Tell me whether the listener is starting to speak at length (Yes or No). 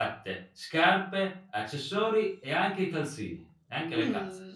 Yes